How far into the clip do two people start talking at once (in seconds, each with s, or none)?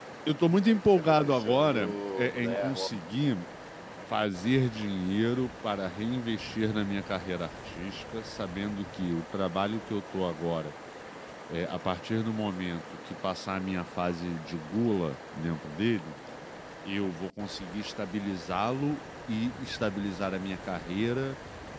0.7 s